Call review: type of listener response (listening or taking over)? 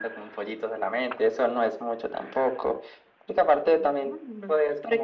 taking over